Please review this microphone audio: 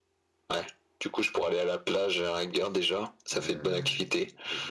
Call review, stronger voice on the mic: echo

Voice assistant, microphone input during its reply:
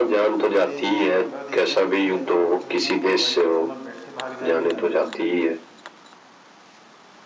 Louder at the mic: echo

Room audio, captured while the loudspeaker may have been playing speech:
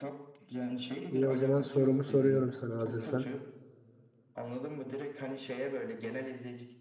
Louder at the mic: user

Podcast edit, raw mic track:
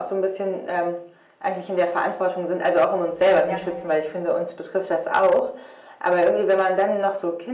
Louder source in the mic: echo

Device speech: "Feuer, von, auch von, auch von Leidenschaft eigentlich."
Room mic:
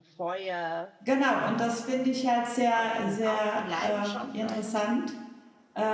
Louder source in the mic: user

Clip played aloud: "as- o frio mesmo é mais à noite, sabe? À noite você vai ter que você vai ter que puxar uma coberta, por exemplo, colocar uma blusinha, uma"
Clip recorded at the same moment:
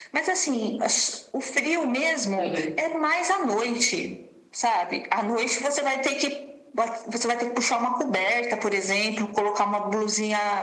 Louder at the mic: echo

